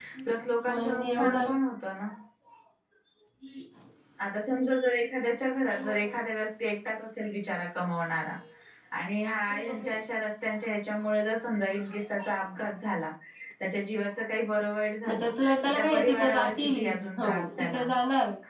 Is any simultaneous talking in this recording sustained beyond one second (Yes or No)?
Yes